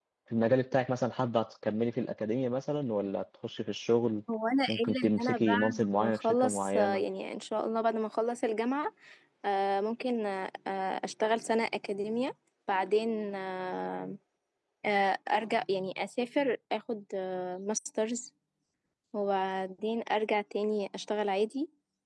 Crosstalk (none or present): present